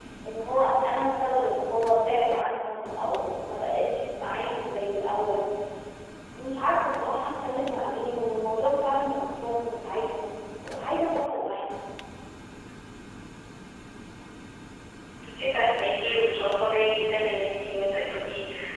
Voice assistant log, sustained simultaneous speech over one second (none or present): none